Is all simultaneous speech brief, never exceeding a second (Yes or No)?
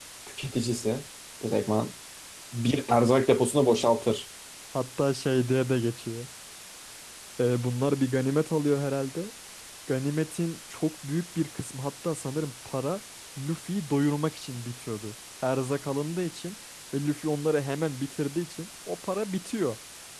Yes